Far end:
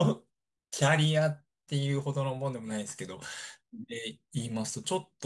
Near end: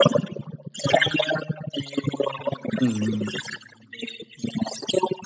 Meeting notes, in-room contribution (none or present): present